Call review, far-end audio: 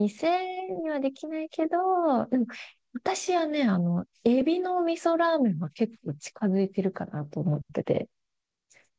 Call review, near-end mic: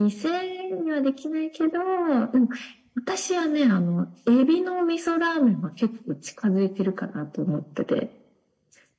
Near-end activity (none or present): none